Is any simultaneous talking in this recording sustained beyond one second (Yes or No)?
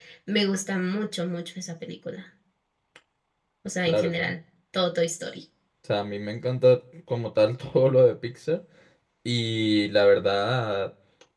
No